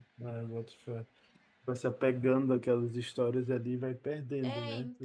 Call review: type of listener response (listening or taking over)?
taking over